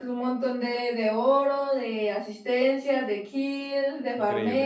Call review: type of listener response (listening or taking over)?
taking over